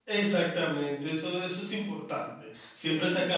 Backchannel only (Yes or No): Yes